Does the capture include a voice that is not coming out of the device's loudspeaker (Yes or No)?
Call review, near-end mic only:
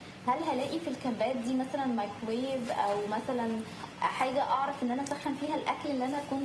No